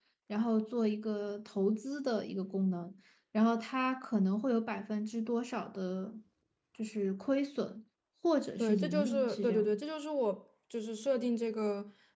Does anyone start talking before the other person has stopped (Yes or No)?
Yes